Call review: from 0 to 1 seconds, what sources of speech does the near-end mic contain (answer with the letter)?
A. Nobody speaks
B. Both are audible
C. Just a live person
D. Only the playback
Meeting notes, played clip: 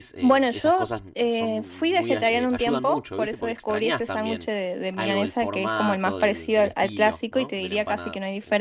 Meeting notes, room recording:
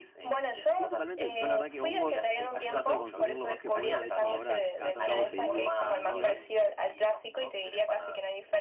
B